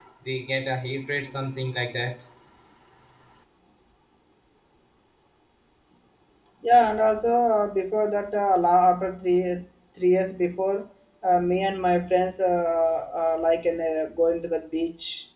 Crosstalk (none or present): none